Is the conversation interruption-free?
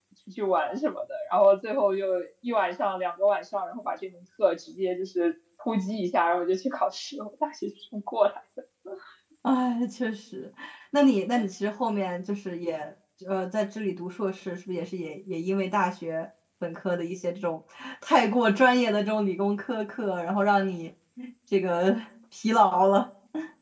Yes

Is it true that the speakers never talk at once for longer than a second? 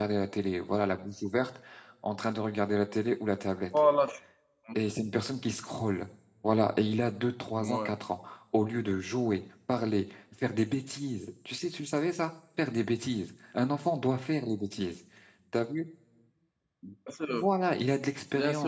Yes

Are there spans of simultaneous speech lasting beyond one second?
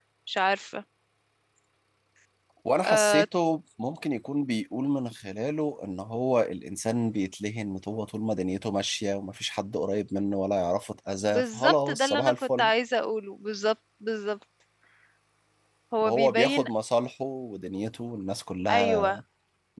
Yes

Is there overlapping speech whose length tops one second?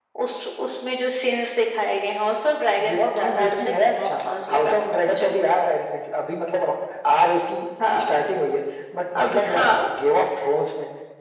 Yes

